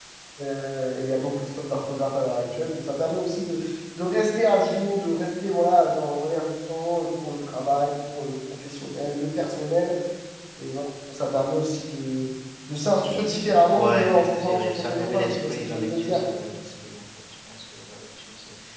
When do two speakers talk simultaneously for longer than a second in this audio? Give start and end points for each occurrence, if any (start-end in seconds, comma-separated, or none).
13.7-16.2